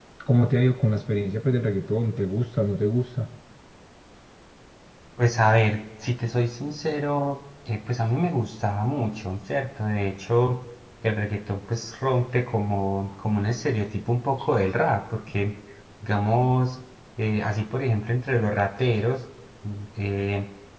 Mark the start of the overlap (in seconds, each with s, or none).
none